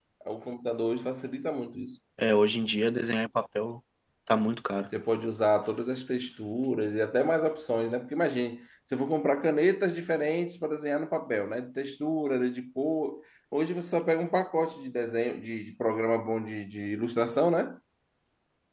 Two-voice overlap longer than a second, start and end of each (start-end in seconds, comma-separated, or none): none